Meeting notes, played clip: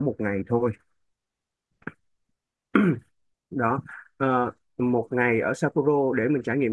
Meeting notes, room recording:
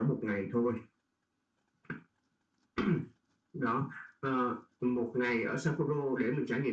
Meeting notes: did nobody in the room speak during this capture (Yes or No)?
Yes